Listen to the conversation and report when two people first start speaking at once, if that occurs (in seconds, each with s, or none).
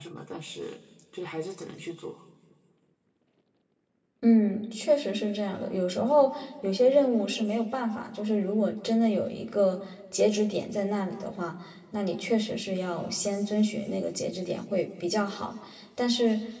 none